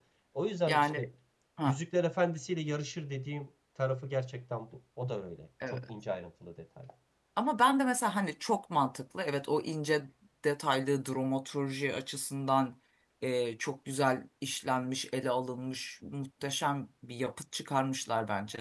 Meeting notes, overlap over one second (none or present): none